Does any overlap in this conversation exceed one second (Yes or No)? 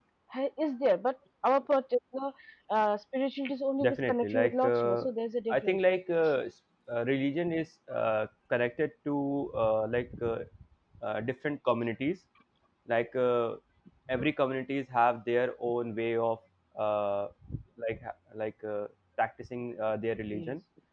Yes